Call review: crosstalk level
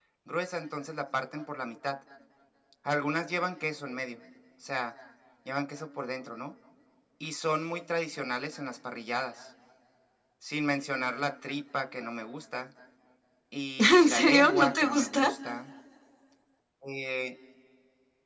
present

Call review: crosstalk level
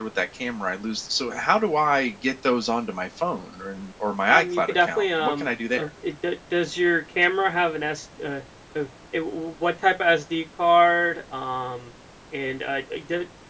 present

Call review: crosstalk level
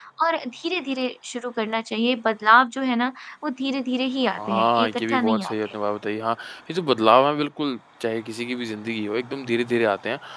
present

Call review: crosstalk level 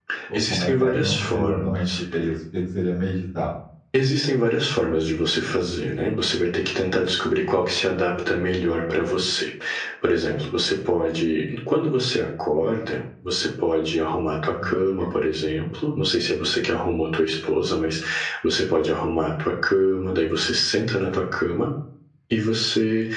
present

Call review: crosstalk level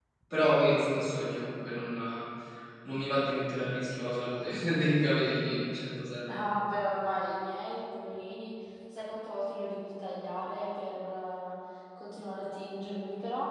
none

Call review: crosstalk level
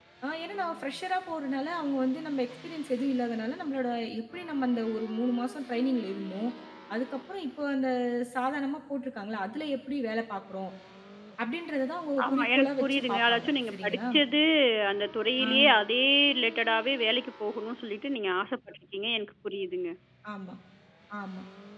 present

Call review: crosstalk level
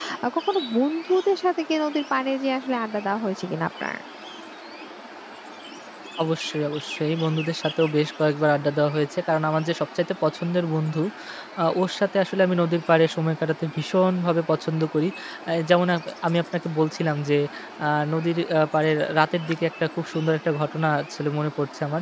none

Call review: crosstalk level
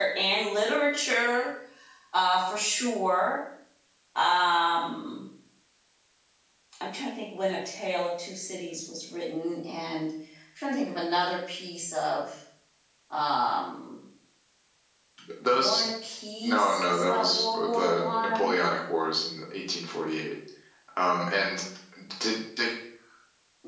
present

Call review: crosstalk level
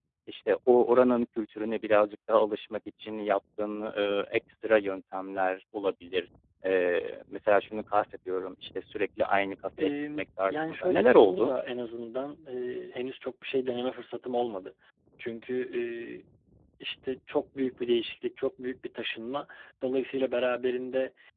present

